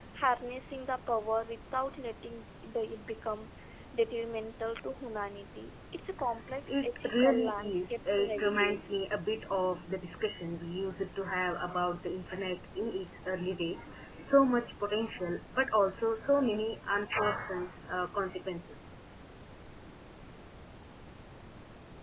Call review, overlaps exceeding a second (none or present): present